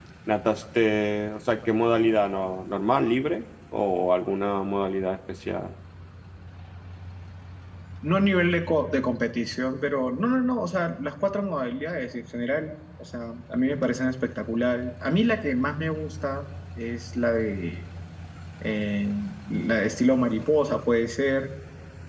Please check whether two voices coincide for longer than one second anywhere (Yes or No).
No